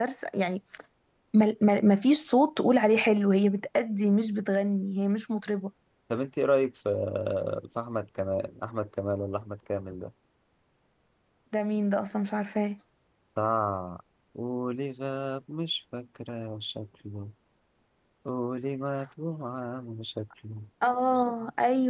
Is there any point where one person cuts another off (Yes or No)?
No